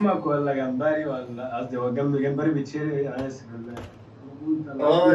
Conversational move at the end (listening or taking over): taking over